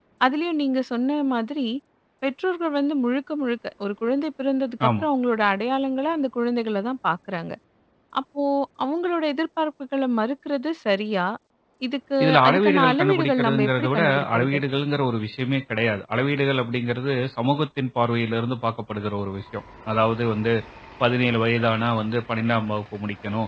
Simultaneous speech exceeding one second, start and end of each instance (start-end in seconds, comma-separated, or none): 12.2-14.6